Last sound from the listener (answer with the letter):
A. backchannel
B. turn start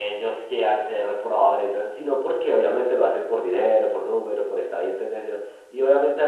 A